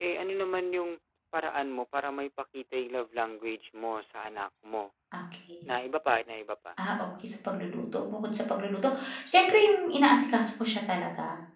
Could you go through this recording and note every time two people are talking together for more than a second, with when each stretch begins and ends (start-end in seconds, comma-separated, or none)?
none